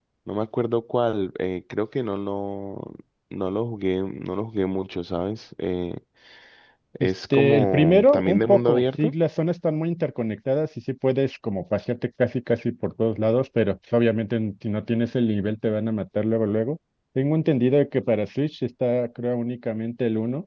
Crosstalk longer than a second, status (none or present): present